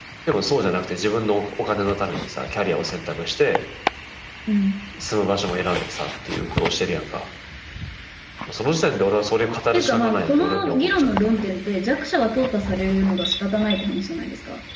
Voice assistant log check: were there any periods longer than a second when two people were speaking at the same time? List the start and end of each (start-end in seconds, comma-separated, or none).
9.7-11.5